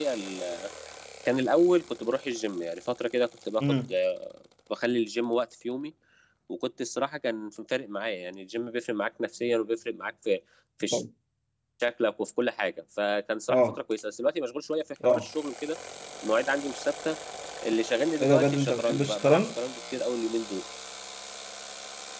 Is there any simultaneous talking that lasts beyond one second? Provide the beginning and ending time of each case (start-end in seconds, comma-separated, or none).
18.2-19.5